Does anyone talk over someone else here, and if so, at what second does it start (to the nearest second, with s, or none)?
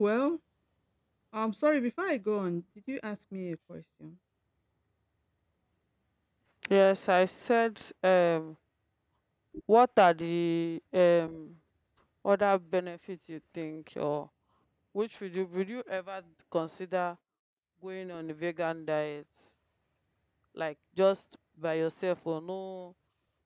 none